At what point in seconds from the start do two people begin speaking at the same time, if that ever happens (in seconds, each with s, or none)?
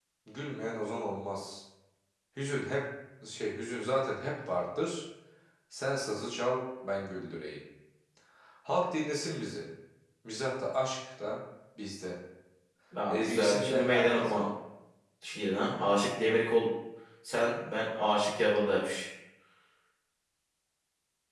13.1 s